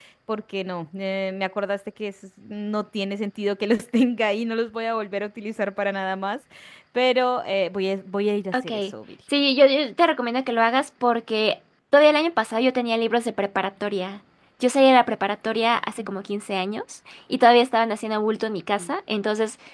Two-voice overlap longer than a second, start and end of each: none

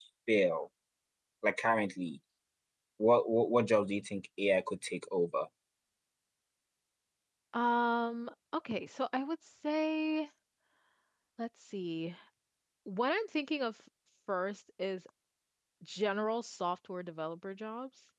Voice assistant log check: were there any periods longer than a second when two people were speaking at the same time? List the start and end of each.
none

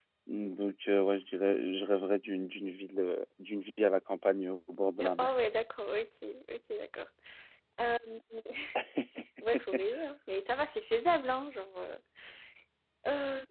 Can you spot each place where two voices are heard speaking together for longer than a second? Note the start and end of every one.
none

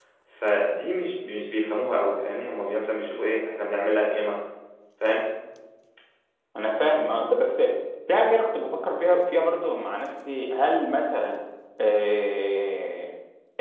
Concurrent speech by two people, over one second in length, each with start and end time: none

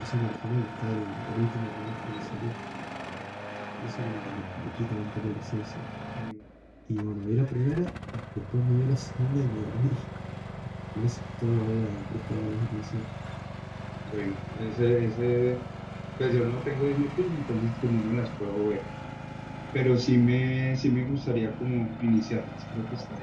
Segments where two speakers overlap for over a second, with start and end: none

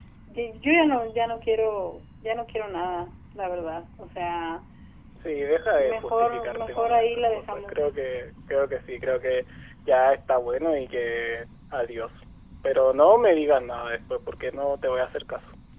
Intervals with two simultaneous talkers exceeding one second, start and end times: 5.8-7.8

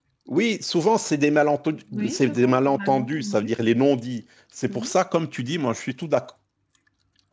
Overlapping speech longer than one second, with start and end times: 1.9-3.5

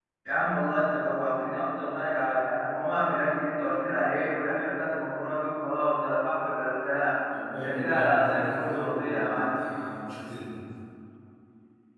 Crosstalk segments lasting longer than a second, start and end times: 7.6-9.6

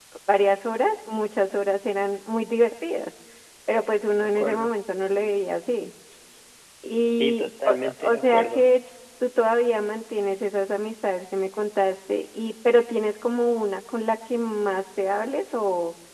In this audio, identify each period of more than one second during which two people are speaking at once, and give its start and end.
7.1-8.6

